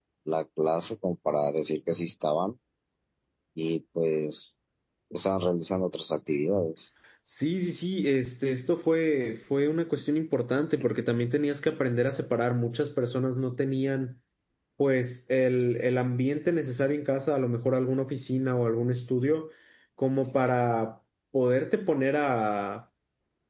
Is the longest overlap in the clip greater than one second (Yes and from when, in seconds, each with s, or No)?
No